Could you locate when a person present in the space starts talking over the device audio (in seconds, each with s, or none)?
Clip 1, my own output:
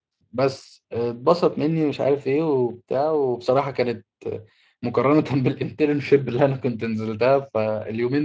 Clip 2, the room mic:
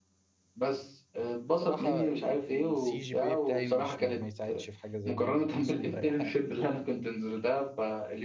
1.5 s